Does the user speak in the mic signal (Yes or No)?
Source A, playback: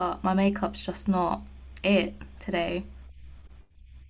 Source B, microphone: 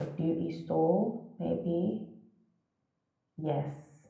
Yes